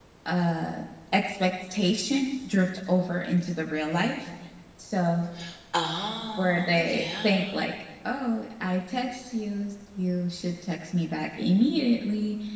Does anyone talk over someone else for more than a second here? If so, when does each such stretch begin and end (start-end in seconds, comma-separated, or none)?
6.4-7.6